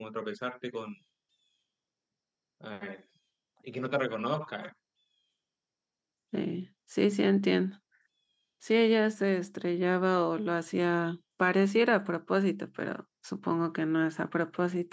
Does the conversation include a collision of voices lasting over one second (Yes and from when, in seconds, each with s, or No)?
No